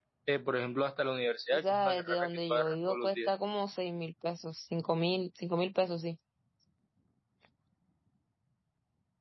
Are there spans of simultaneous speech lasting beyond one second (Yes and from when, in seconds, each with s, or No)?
Yes, from 1.5 s